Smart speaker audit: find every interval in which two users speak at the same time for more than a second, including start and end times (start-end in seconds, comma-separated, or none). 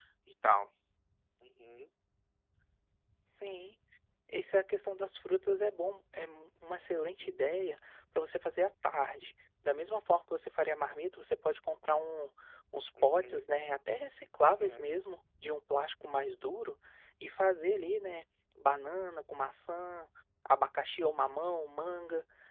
none